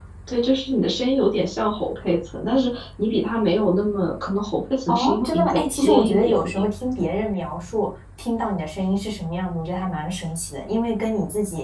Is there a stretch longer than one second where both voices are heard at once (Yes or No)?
Yes